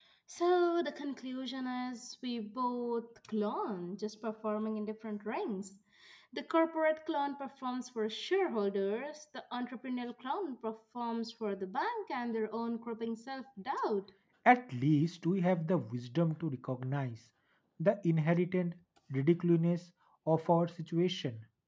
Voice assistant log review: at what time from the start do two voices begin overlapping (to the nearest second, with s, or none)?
none